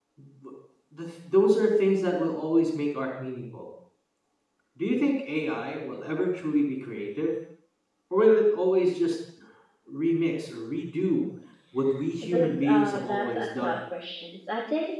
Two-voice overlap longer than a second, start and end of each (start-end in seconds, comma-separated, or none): 12.3-13.8